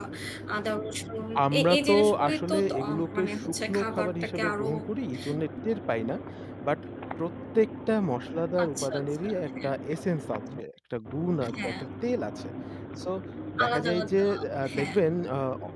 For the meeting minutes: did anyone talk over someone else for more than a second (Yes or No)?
Yes